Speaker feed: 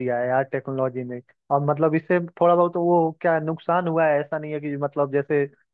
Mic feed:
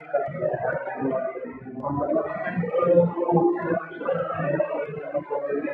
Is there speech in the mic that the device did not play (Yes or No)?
No